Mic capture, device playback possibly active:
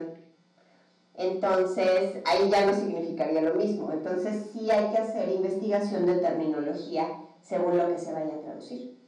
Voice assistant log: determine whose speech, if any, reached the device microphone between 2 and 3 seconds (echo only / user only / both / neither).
echo only